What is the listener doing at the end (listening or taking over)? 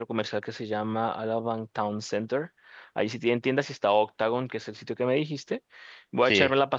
listening